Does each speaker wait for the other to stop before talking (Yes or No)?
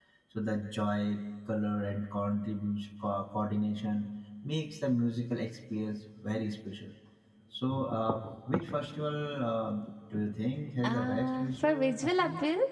No